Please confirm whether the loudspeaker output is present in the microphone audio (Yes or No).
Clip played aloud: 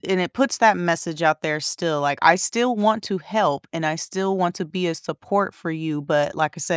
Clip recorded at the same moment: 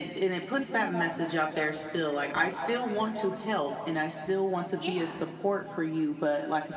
Yes